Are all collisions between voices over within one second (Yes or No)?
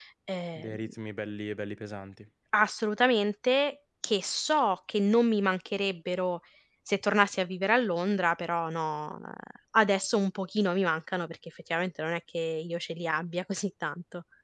Yes